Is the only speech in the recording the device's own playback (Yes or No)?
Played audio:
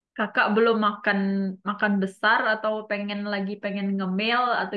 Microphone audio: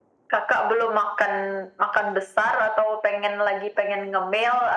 Yes